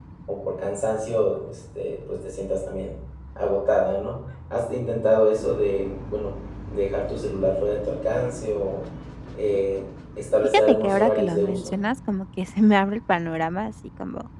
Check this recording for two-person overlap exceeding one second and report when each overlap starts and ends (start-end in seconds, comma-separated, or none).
10.5-11.7